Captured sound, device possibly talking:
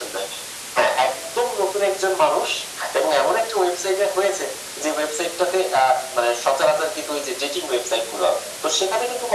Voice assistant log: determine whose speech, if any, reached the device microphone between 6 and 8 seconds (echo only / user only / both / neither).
echo only